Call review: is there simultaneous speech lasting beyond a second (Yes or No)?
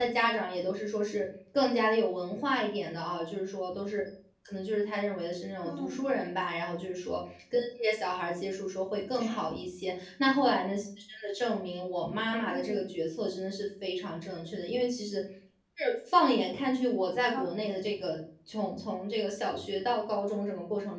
No